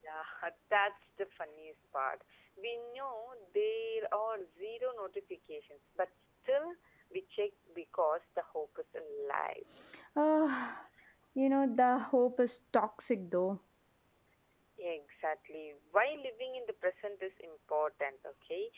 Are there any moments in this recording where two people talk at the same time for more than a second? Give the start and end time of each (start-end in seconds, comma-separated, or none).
none